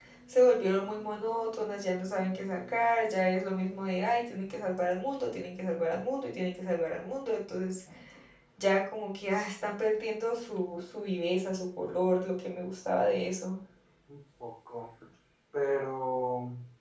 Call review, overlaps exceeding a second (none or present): none